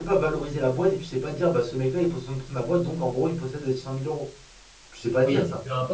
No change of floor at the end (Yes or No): No